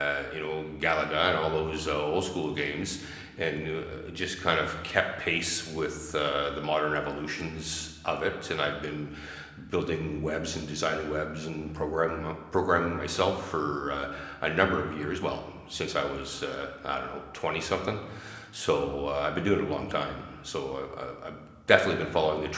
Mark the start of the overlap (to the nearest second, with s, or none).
none